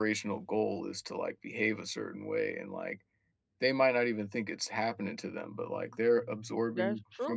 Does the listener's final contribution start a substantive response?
Yes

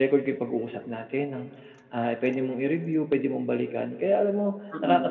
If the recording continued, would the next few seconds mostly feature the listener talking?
No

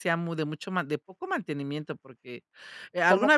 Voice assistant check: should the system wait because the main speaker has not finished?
Yes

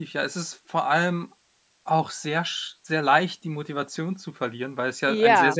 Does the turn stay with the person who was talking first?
Yes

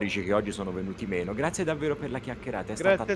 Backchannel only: No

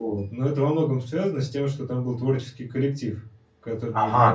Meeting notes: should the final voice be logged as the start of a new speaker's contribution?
Yes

